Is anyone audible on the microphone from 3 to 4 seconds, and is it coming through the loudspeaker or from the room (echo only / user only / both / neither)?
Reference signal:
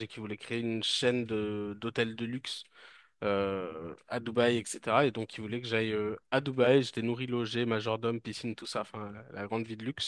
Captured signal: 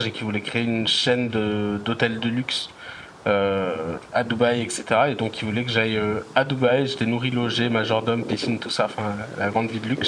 echo only